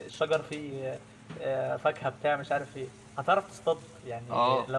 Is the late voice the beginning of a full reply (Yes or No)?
Yes